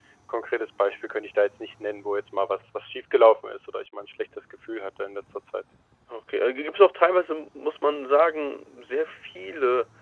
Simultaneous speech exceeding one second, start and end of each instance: none

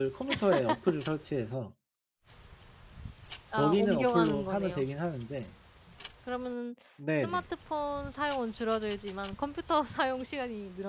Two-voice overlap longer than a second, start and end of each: 3.6-4.9

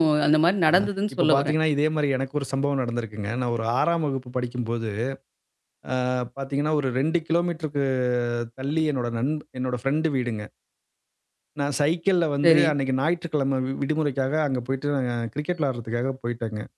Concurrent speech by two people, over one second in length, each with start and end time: none

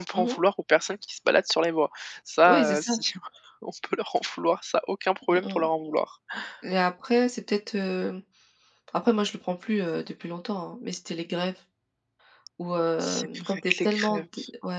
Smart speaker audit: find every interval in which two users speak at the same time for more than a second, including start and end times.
13.0-14.2

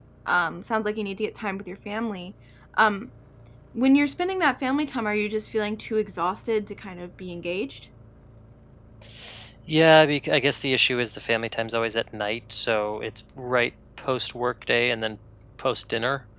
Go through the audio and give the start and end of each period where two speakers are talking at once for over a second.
none

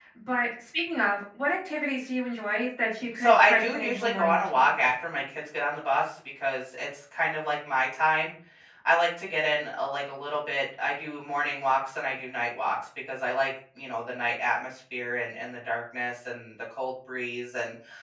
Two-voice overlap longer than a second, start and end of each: 3.1-4.7

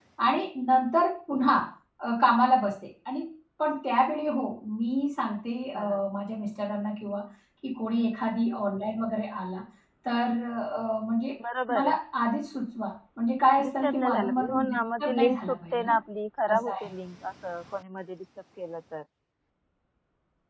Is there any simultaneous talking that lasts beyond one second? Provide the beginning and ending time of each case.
13.6-15.9

